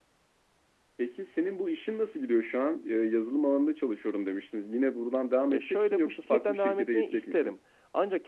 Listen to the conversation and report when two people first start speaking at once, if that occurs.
5.5 s

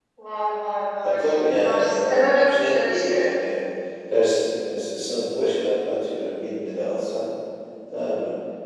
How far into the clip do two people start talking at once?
1.0 s

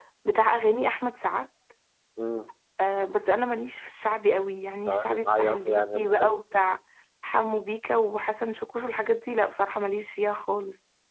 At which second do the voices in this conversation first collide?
4.9 s

